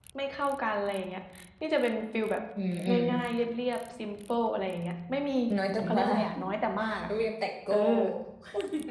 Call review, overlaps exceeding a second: none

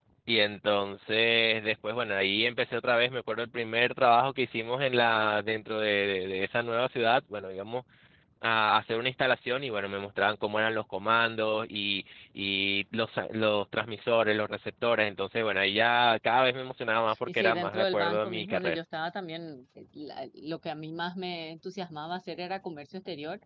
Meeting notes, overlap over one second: present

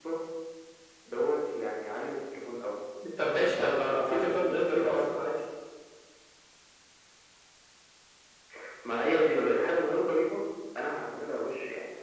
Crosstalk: present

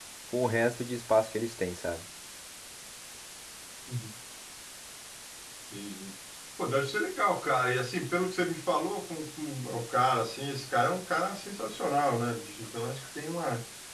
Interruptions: none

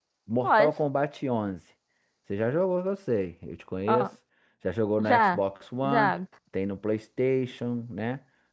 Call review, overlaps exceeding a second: none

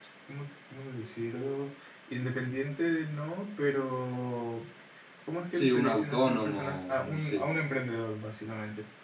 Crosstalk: present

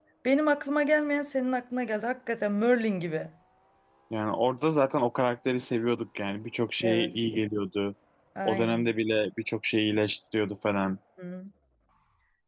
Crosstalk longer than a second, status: none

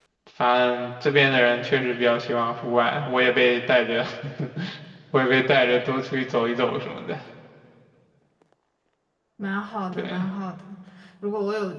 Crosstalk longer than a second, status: none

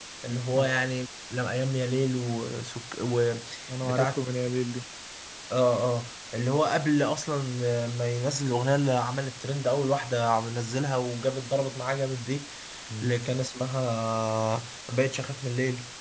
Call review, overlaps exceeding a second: none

